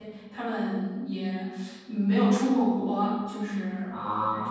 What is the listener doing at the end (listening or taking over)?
taking over